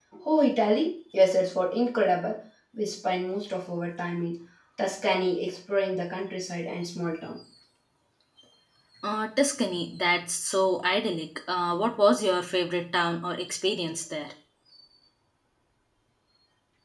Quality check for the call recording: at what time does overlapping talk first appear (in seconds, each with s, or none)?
none